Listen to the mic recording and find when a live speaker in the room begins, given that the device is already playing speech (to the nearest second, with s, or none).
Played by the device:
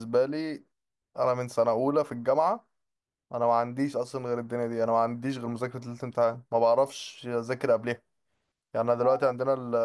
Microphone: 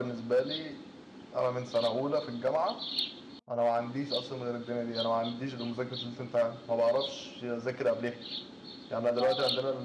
none